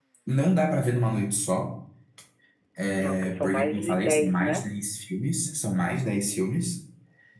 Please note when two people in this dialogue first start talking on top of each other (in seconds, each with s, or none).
3.0 s